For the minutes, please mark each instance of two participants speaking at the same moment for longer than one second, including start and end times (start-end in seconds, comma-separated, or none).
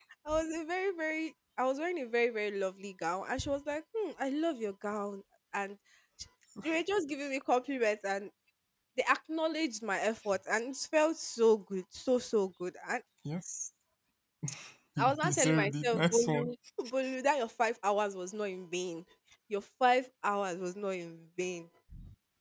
15.0-16.5